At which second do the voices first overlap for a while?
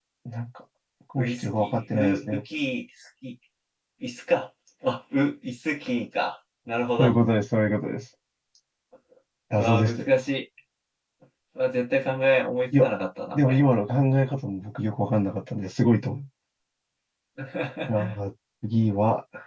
1 s

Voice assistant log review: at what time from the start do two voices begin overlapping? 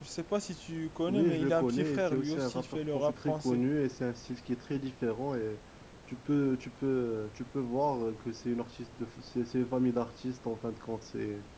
1 s

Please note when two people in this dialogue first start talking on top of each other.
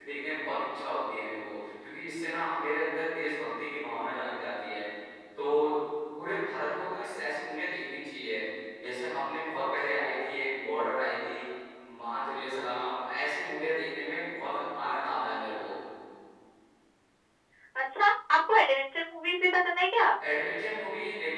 none

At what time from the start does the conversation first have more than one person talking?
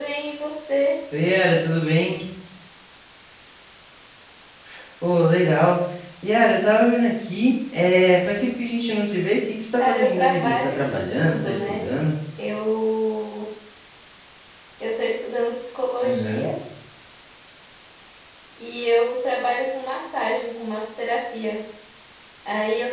10 s

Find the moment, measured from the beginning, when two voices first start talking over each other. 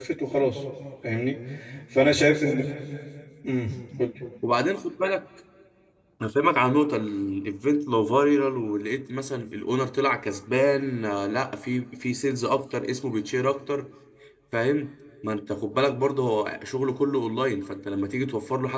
none

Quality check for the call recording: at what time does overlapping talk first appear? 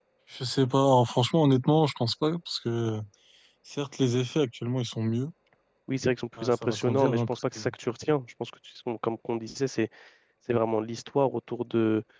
6 s

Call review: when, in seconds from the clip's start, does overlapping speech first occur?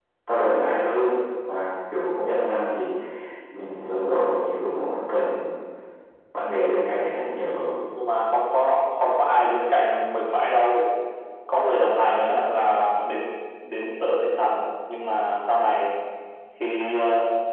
none

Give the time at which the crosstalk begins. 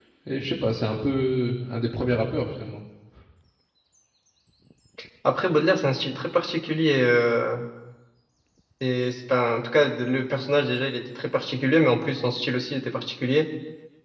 none

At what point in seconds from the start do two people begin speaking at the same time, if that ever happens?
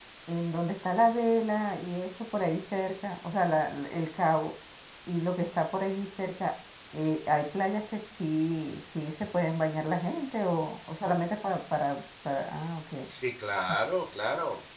none

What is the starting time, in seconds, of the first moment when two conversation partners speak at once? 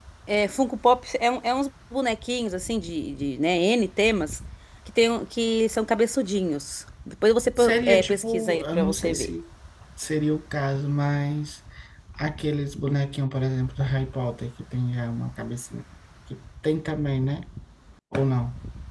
8 s

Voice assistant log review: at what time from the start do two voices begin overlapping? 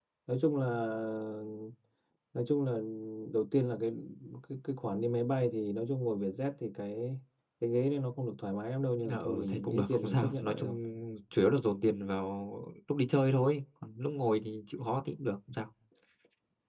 9 s

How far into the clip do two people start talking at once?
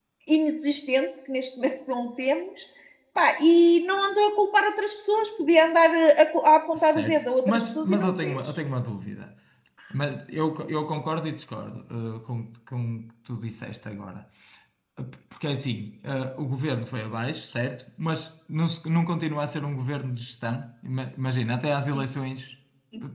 7 s

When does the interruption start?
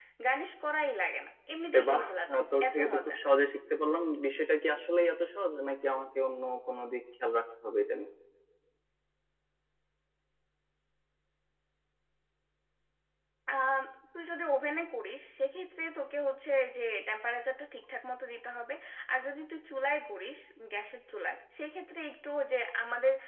2 s

